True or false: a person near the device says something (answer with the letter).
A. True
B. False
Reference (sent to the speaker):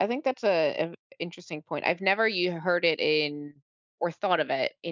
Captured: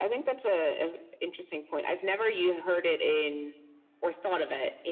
B